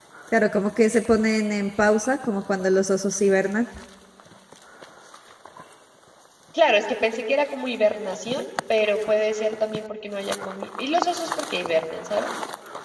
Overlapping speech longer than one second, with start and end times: none

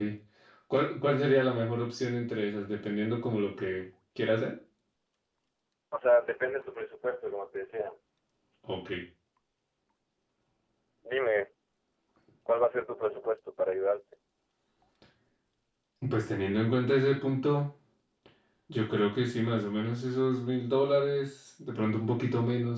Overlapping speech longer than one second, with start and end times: none

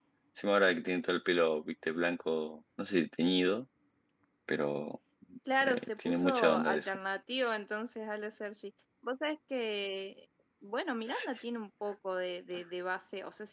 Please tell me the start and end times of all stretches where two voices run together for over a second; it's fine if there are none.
5.6-7.0

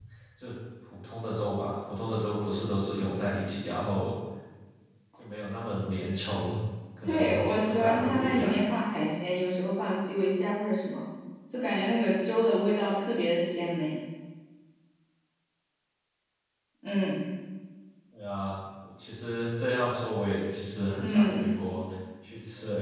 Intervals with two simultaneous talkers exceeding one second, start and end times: 7.0-8.5

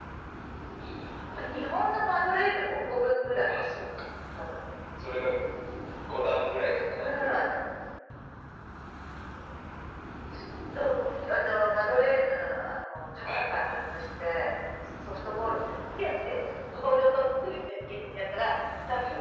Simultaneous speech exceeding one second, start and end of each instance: none

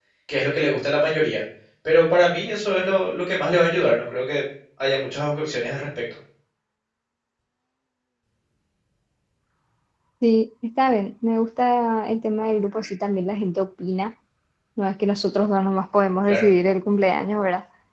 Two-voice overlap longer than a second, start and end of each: none

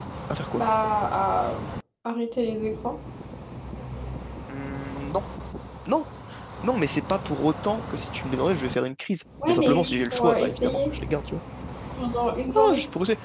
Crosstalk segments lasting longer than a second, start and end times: 9.5-10.9

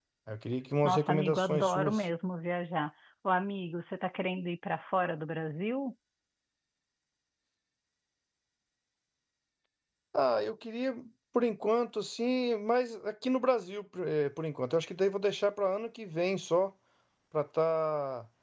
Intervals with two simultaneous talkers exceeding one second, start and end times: 0.8-2.0

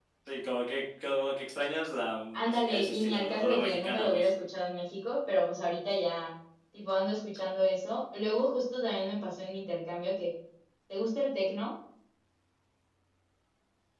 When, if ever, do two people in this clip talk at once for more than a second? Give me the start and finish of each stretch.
2.3-4.3

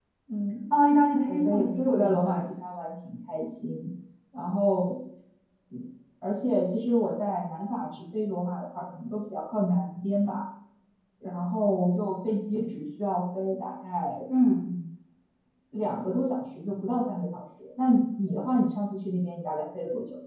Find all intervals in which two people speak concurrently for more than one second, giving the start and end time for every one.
1.2-2.5

